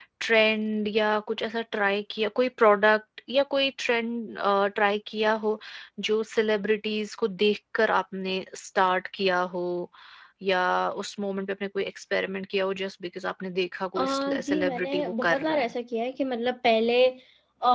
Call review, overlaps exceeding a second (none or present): present